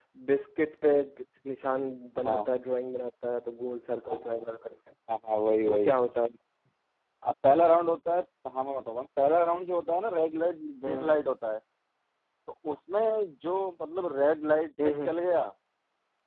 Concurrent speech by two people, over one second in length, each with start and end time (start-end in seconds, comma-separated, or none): none